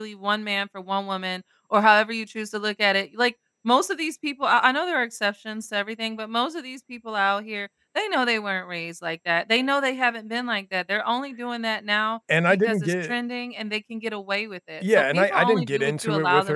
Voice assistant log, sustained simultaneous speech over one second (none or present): present